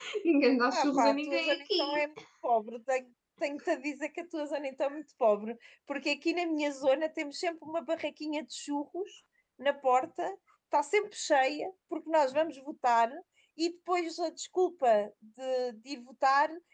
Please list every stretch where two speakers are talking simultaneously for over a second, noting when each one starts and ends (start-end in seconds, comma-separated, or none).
0.7-2.0